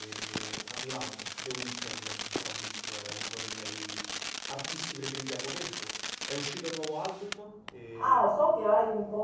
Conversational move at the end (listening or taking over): taking over